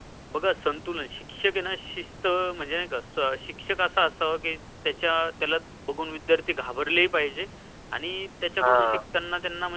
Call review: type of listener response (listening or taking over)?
listening